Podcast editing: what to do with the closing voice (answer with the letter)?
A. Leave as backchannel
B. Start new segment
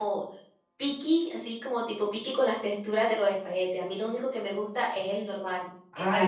B